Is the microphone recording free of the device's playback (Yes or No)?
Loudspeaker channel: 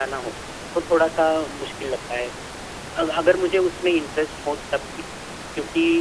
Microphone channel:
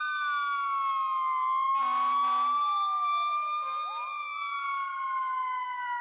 Yes